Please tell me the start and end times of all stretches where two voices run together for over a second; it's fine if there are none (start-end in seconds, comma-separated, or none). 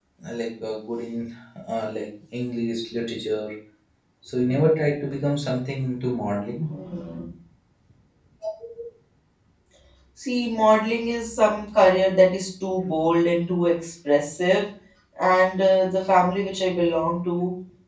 none